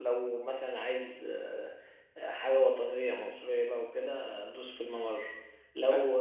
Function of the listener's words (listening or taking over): taking over